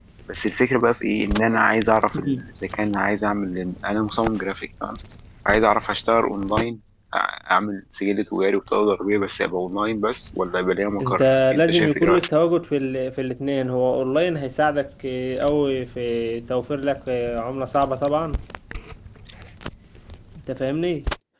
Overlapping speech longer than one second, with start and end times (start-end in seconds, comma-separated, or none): 11.0-12.2